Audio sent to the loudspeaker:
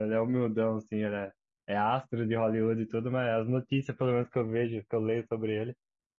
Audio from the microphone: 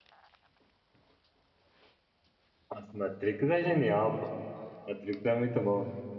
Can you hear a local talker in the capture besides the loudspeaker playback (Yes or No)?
Yes